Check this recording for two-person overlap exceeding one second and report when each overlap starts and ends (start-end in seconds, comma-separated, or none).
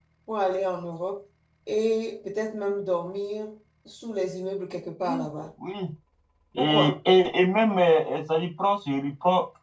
none